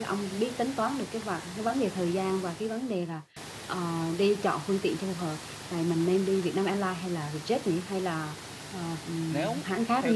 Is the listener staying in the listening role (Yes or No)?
No